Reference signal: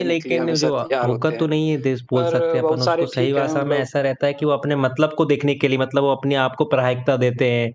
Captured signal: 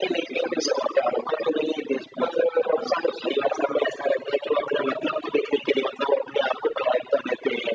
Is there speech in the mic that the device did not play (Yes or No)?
No